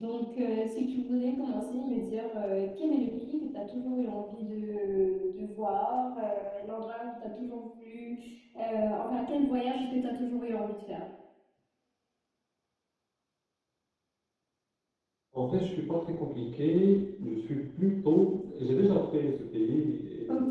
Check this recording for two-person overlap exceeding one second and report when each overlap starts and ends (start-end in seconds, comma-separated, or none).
none